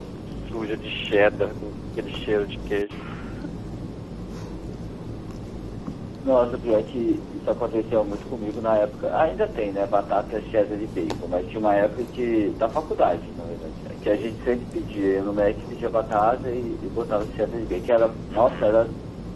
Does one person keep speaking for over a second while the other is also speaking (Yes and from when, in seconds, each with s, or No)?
No